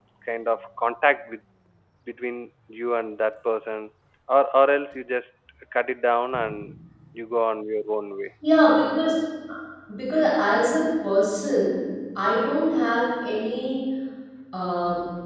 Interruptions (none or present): none